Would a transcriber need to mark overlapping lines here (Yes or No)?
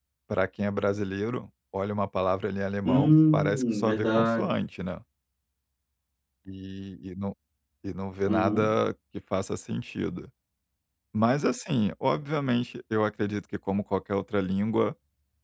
Yes